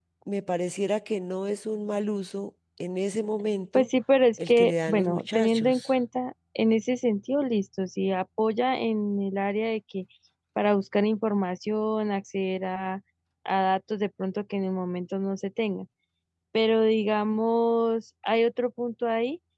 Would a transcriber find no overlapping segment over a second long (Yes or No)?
No